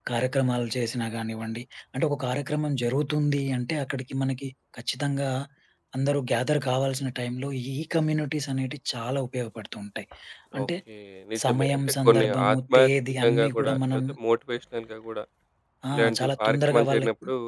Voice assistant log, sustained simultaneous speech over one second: present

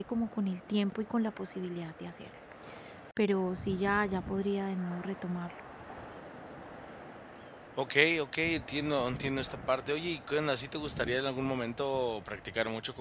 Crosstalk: none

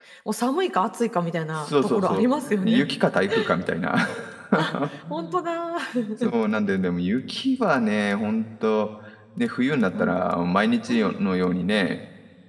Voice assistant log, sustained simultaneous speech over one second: present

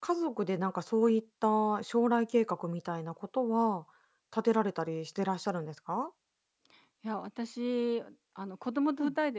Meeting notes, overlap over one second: none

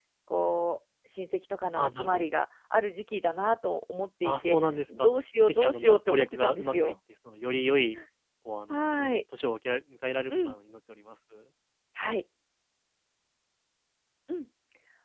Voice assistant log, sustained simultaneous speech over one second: present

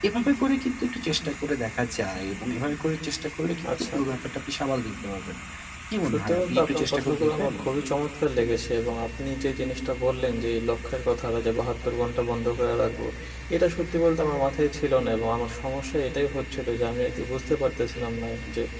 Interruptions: present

